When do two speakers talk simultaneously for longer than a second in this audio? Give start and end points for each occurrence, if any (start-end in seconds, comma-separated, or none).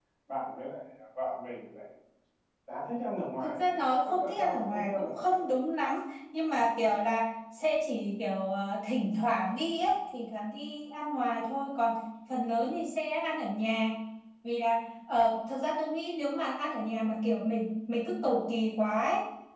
4.0-5.6